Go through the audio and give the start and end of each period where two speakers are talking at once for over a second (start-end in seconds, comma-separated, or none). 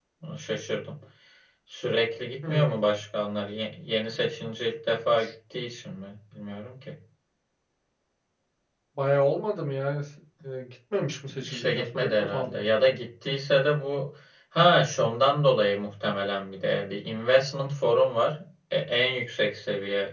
11.4-12.7